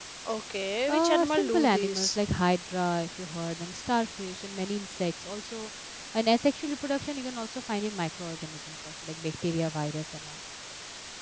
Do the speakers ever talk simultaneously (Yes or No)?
Yes